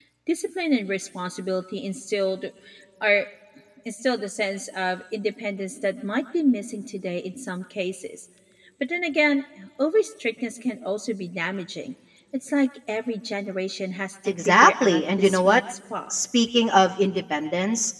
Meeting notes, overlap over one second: present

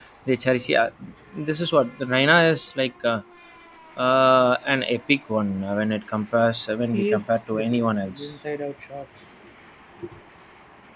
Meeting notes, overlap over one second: present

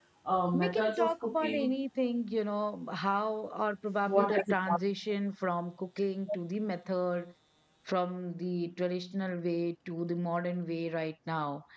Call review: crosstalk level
present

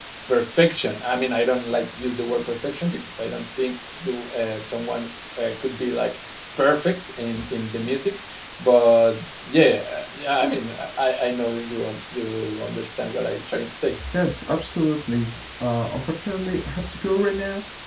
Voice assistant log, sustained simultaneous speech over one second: none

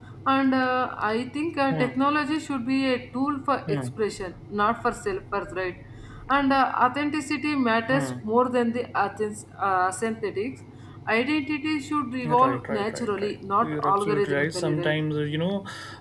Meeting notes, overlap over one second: present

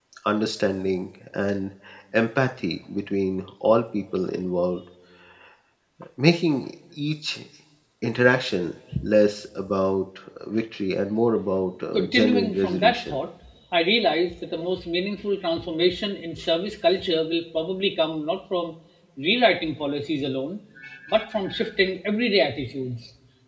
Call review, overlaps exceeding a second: present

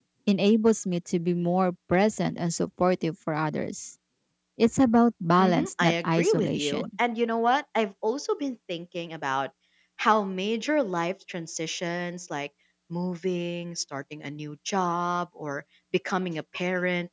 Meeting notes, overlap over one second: present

